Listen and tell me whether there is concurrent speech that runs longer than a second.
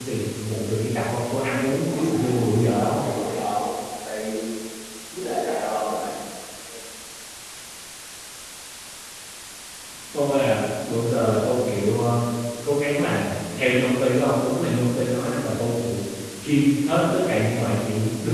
Yes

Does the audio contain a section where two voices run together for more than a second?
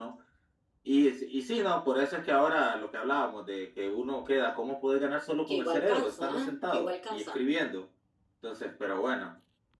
Yes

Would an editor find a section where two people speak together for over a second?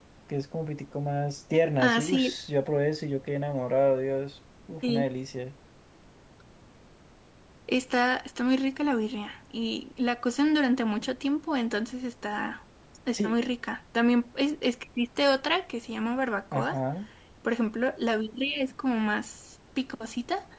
No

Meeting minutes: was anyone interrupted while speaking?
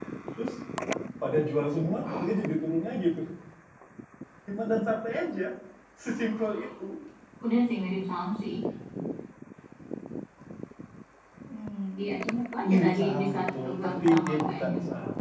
Yes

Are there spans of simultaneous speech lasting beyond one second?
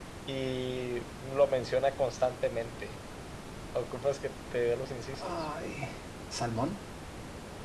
No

